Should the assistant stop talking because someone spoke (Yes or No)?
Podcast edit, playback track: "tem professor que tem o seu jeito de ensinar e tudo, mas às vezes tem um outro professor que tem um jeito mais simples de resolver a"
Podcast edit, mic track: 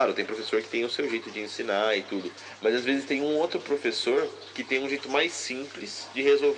No